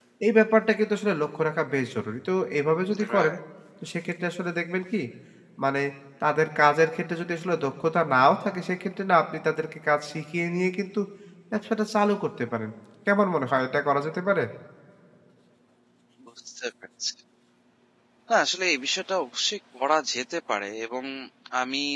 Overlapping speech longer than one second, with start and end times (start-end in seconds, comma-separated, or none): none